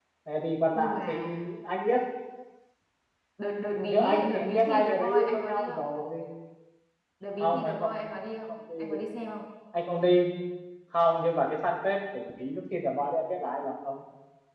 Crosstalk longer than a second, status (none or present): present